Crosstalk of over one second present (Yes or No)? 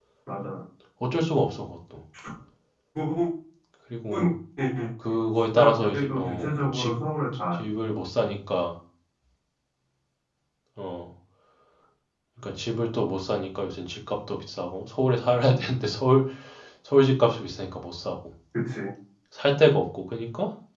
Yes